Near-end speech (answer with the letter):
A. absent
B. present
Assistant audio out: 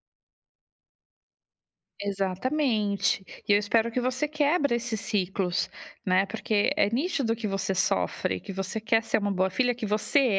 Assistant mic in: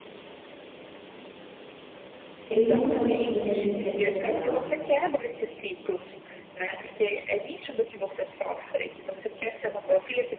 B